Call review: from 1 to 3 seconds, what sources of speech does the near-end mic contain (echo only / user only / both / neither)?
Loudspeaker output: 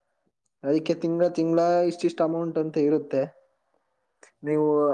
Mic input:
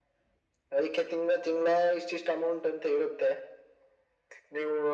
echo only